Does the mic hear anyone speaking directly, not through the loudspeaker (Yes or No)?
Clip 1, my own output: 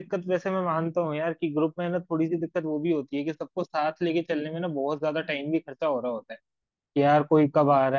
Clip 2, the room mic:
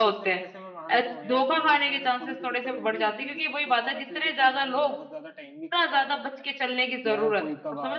Yes